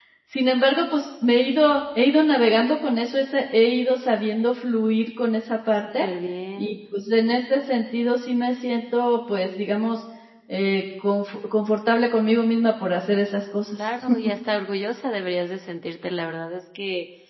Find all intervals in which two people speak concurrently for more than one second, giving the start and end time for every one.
none

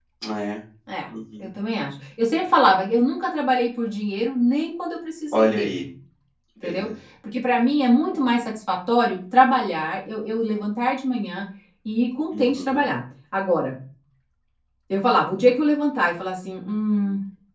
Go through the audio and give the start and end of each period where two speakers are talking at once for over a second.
none

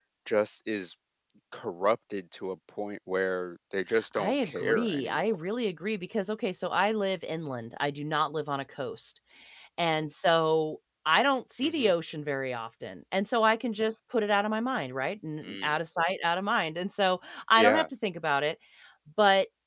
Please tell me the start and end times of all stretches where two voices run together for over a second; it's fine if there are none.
4.2-5.4

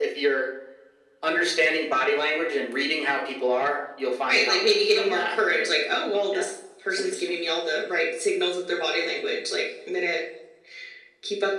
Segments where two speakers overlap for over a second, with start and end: 4.3-5.8

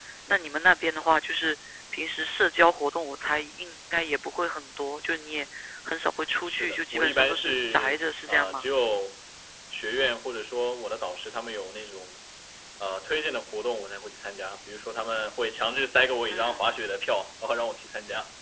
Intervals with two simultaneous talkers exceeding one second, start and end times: 6.4-8.6

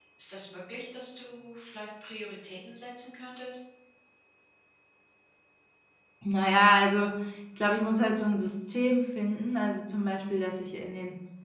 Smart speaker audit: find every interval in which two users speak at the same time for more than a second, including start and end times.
none

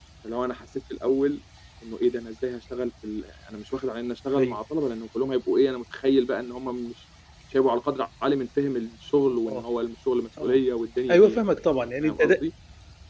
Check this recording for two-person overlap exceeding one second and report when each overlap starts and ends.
none

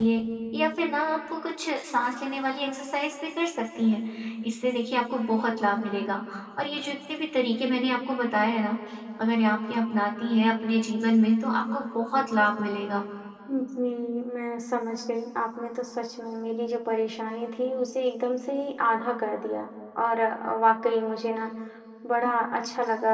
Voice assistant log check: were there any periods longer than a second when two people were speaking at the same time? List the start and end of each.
none

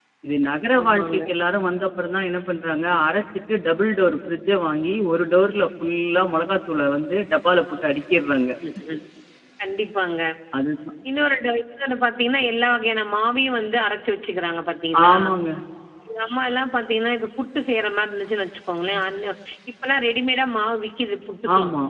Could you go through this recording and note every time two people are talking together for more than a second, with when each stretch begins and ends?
none

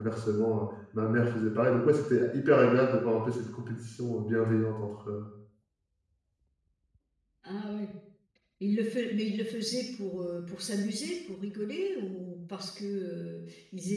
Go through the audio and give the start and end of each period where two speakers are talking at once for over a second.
none

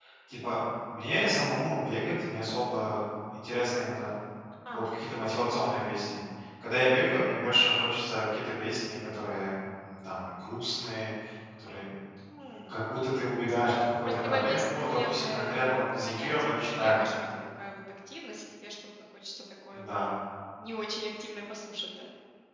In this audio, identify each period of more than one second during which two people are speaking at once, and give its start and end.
14.0-17.0

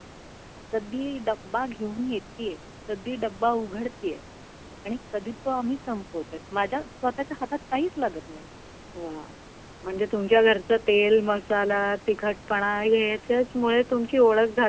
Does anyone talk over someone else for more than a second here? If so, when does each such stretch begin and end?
none

